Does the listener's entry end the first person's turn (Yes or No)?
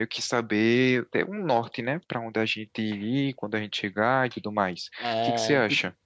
Yes